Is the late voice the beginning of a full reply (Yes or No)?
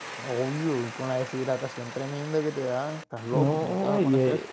Yes